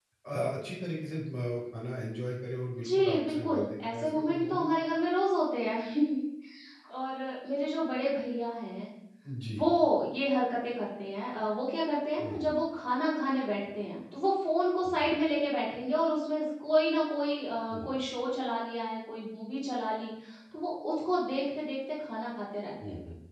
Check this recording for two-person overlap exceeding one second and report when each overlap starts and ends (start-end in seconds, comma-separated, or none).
2.8-4.7